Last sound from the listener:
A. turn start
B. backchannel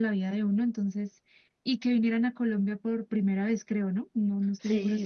A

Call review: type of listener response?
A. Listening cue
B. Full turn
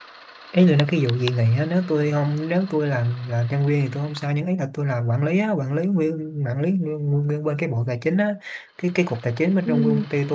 A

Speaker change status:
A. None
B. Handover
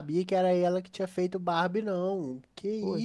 B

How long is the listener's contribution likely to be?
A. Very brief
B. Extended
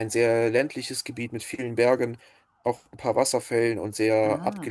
B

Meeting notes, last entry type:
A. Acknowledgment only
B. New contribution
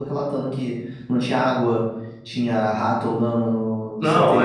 B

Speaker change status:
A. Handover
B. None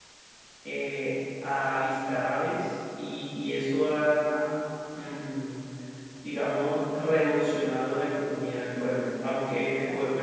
B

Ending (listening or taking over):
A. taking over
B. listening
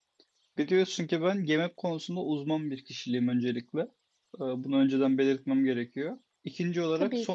B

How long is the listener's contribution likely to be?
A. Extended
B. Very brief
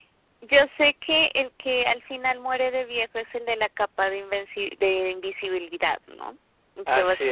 B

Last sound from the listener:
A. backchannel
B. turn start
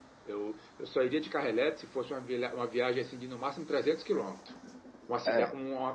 A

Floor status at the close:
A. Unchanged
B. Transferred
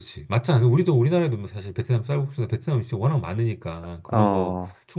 A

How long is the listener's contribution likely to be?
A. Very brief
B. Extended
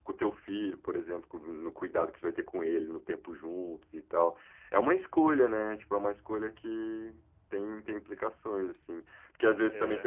A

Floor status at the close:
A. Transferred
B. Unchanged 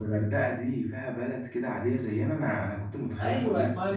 A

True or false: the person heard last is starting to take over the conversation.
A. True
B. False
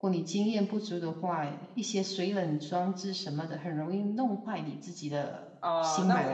A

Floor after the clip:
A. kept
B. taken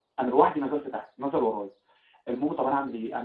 A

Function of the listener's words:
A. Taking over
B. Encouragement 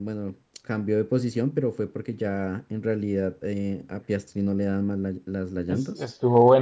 A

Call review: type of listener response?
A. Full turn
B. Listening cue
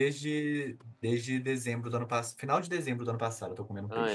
A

